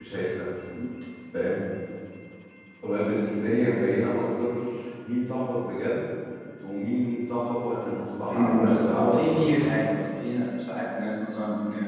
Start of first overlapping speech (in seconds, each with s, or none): 8.3 s